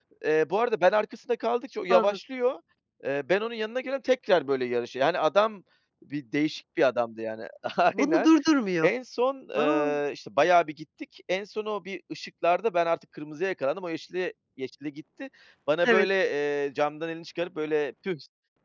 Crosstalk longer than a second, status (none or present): none